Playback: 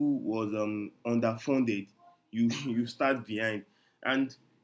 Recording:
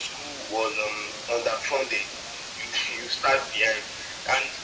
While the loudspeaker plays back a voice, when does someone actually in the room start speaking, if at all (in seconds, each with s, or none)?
none